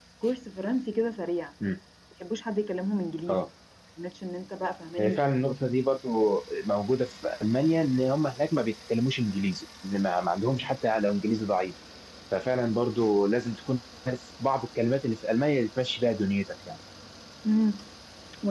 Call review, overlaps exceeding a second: none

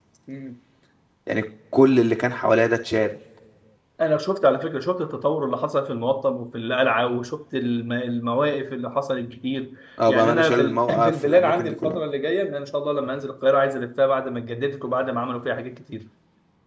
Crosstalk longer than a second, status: present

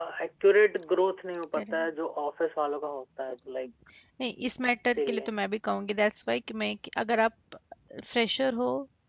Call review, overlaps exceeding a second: none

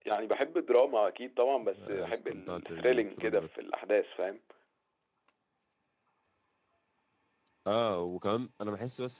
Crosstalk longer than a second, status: present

